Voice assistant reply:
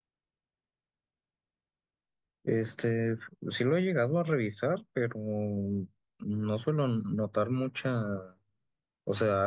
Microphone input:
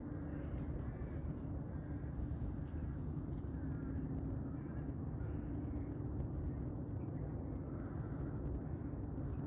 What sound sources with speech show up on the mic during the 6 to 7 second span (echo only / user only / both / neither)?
neither